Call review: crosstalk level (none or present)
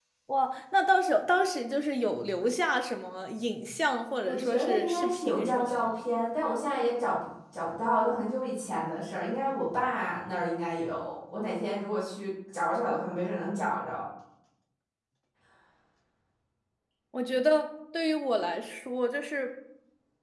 present